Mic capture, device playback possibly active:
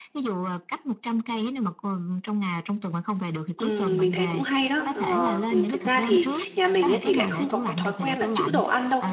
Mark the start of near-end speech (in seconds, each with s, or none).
3.6 s